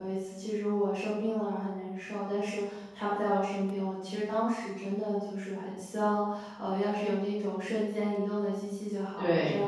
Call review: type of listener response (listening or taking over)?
listening